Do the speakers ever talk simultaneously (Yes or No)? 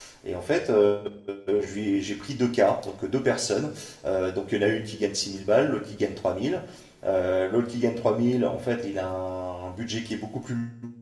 No